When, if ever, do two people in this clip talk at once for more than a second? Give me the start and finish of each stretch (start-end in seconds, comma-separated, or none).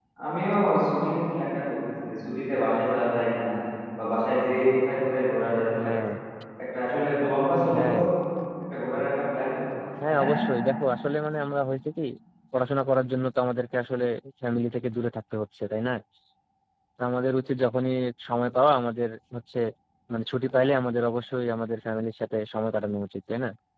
none